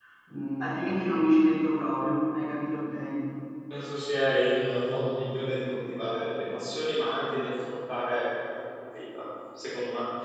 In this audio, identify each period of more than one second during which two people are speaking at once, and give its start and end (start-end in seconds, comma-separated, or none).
none